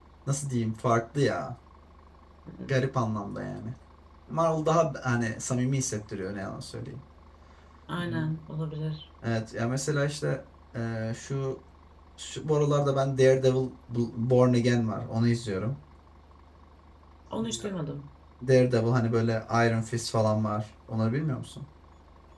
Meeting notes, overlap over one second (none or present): none